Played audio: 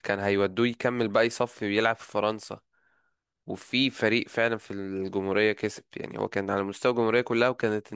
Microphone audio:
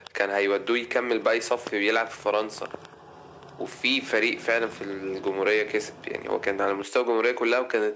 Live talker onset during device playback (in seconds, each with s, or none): none